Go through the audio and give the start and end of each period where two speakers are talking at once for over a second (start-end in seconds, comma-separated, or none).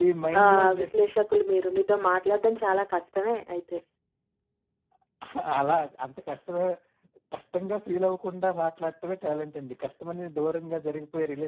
none